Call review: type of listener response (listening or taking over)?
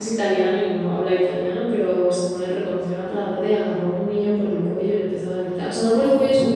listening